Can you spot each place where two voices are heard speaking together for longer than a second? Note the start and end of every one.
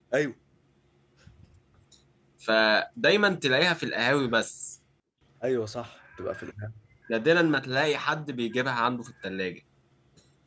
none

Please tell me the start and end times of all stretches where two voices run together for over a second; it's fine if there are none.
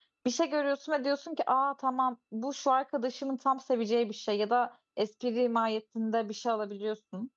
none

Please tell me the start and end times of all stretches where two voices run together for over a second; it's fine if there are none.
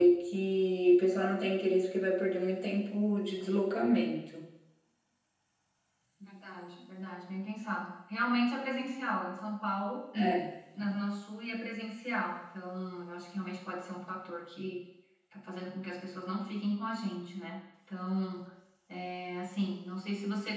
none

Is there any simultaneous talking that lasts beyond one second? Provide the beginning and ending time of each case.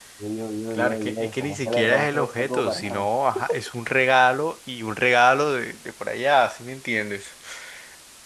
0.7-3.1

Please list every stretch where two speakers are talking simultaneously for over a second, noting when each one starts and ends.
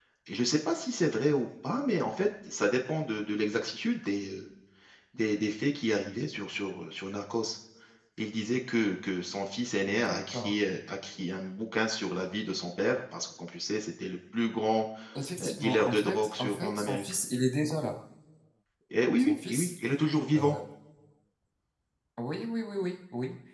15.4-17.0

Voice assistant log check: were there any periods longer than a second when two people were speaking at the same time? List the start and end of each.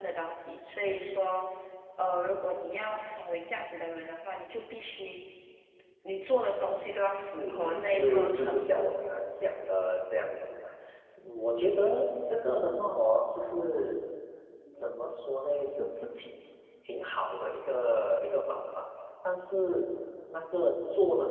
7.4-8.9

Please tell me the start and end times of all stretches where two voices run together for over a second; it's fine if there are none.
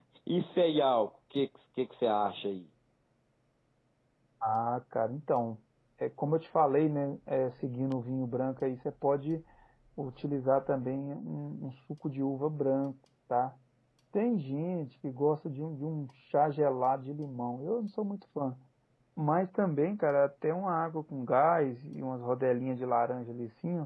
none

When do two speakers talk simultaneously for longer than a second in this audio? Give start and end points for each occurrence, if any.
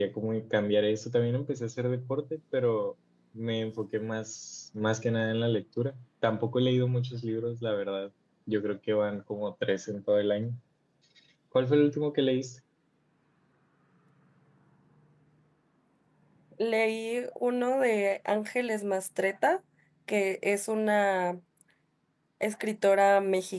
none

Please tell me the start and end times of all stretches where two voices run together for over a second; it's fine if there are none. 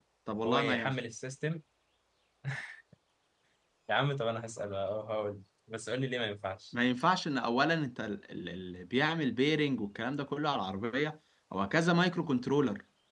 none

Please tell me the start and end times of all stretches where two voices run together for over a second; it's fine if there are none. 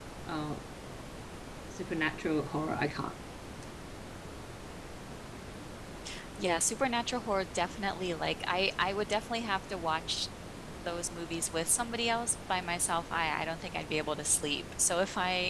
none

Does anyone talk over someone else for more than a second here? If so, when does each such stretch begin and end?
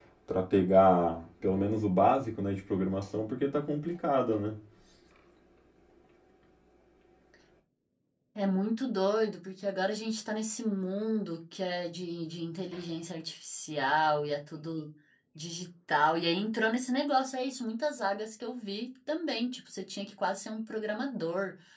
none

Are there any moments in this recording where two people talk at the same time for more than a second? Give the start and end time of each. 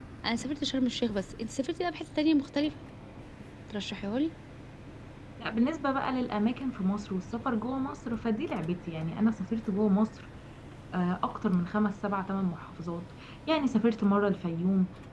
none

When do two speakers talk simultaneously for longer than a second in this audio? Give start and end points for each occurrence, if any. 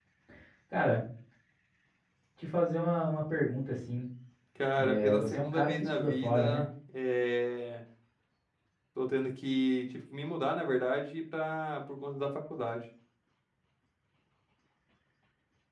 4.8-6.6

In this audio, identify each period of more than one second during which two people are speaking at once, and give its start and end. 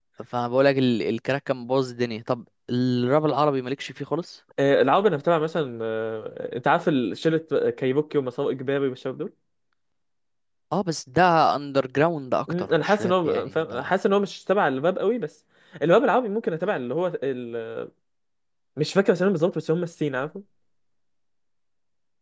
12.5-13.9

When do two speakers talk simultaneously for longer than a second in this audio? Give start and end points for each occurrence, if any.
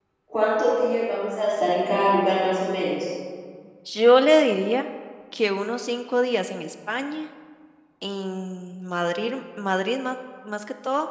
none

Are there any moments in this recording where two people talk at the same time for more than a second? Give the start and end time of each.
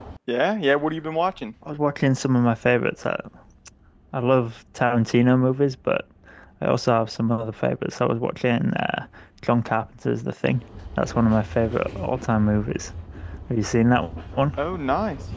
none

